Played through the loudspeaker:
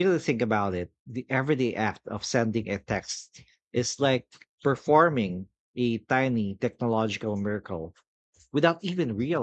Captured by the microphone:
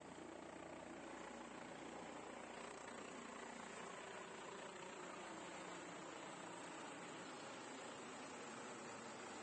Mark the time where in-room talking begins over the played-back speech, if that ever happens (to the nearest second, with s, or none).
none